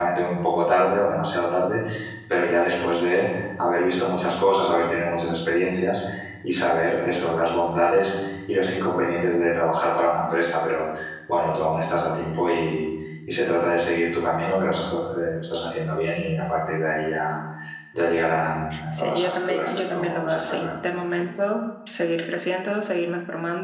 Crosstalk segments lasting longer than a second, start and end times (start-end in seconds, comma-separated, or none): 19.0-20.7